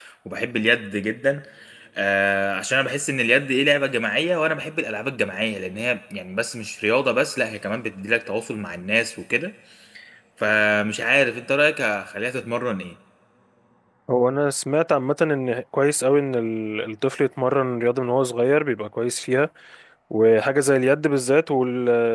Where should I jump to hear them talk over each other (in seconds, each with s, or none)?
none